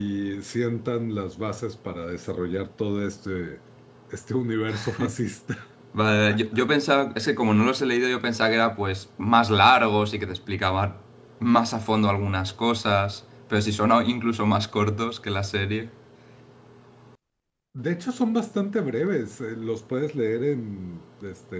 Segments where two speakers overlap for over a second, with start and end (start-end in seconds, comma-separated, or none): none